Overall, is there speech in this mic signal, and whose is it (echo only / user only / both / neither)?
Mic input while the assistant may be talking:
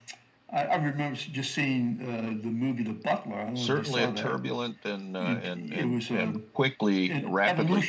both